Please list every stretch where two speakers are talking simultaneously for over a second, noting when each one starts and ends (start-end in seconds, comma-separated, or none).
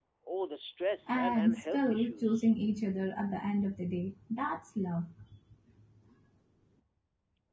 1.1-2.4